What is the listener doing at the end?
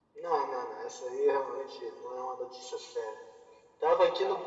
listening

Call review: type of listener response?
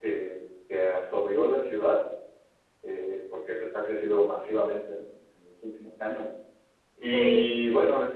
listening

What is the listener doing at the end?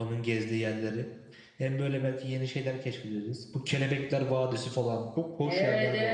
taking over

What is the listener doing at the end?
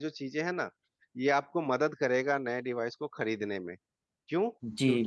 listening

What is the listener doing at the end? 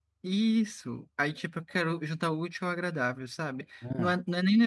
listening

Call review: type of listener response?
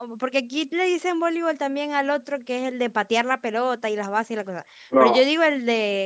listening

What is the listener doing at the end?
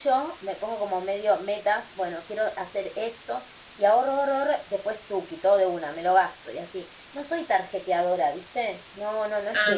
listening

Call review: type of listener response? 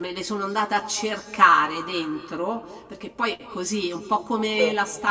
listening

